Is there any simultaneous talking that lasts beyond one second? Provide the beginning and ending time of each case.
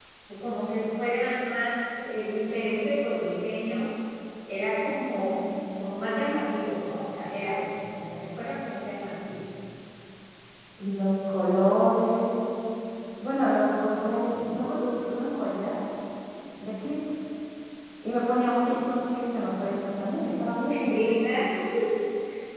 none

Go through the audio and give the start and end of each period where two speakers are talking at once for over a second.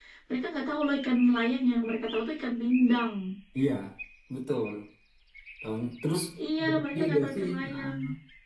6.6-7.9

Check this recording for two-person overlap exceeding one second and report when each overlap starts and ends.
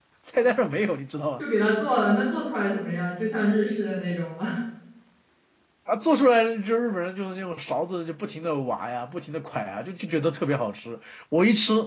none

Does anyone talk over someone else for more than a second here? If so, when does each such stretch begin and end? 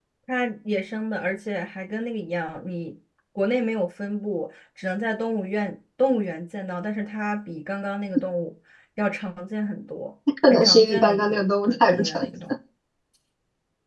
10.5-12.3

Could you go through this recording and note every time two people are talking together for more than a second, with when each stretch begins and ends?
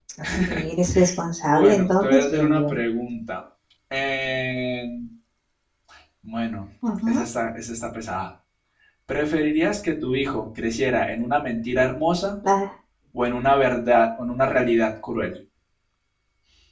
1.4-2.8

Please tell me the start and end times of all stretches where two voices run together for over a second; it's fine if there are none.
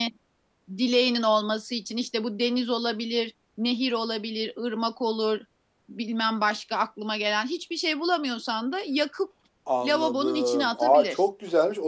9.8-11.2

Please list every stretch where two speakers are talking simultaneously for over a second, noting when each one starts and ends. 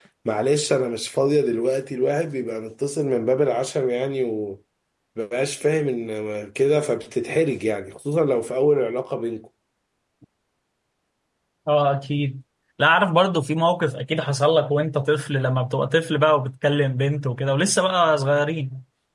none

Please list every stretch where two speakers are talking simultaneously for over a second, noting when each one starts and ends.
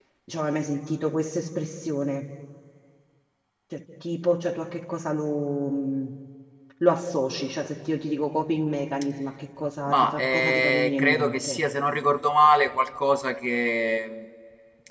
9.9-11.6

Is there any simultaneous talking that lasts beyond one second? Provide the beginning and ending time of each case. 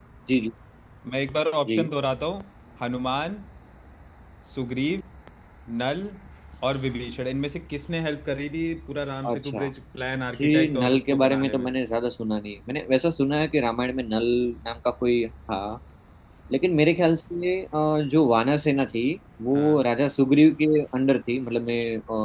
10.4-11.7

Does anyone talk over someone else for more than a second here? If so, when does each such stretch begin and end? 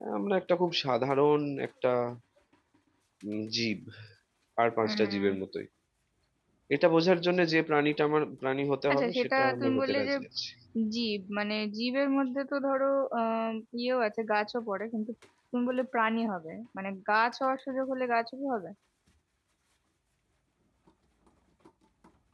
8.9-10.1

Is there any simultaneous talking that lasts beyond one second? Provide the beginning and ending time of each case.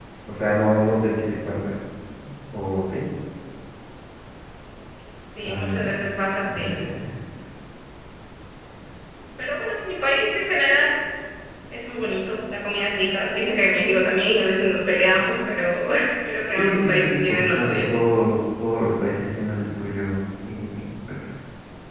16.5-17.8

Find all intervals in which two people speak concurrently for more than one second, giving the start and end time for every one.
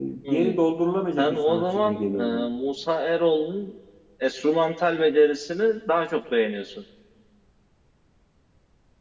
1.2-2.5

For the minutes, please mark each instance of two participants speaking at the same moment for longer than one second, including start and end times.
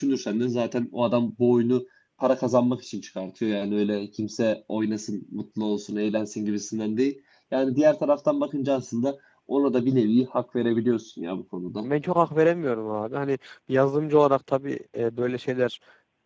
none

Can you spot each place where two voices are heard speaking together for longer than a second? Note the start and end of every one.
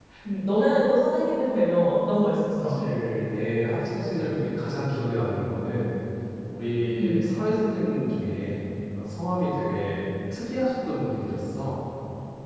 none

